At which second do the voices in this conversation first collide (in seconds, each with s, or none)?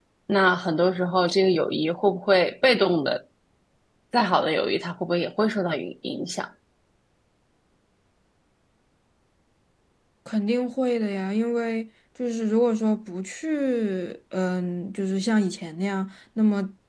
none